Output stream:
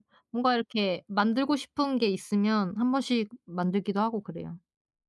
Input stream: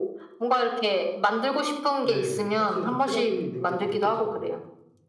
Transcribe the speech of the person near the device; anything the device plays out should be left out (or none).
네네. 확실히 좀 체력이 는 게 좀 느껴져요.